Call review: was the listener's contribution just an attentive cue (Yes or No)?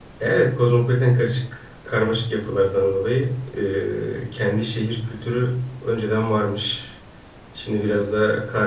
Yes